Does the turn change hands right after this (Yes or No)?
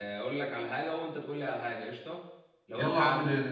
Yes